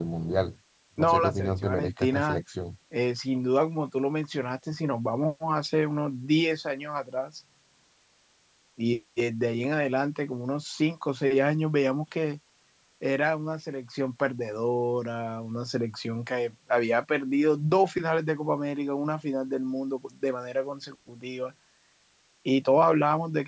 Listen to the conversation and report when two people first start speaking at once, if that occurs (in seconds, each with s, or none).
1.0 s